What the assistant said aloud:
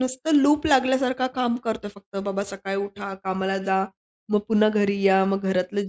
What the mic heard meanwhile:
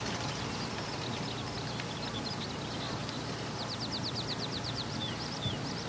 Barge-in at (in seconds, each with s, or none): none